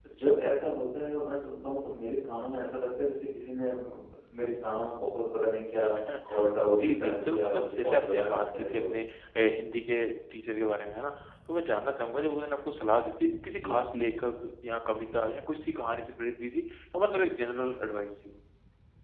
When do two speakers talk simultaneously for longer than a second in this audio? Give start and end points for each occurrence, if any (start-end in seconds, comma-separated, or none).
6.7-8.9